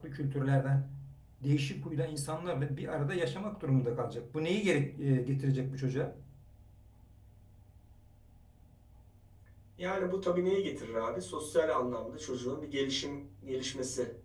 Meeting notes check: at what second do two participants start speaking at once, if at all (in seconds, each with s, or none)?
none